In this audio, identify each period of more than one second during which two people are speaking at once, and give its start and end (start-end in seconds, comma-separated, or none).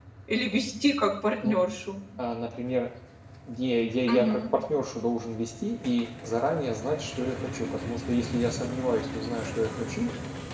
none